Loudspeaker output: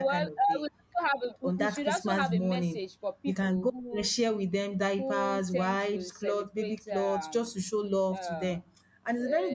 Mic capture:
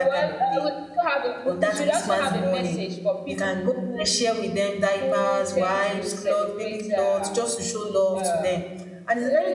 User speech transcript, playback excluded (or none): none